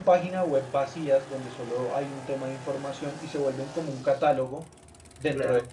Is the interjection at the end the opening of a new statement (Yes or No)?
No